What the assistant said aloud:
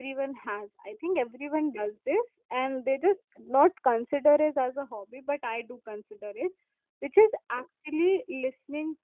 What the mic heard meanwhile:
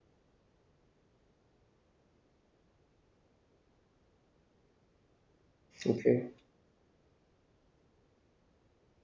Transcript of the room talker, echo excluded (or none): Okay.